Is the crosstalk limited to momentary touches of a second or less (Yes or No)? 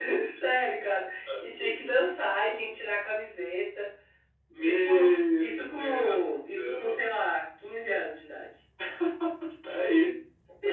No